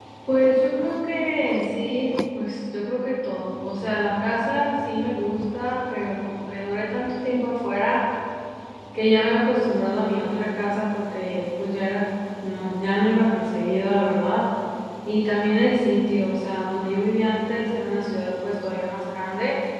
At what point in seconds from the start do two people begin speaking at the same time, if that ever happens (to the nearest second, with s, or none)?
none